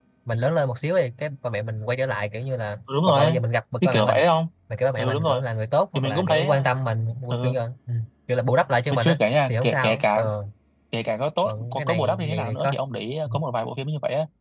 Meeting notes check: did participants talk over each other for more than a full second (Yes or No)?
Yes